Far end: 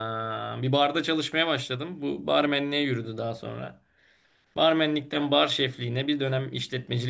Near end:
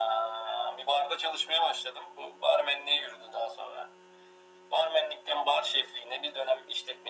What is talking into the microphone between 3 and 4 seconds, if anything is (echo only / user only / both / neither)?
echo only